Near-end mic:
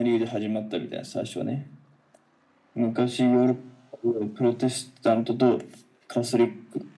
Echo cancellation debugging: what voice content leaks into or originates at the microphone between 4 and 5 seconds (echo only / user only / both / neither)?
echo only